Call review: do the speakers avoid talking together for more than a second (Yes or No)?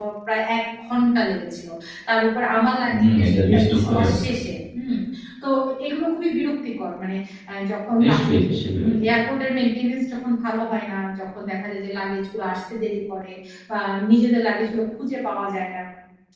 No